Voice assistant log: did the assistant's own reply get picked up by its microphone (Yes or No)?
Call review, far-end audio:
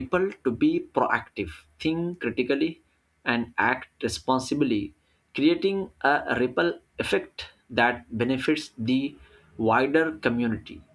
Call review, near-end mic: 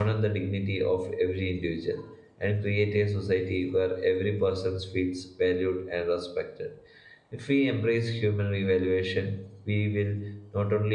No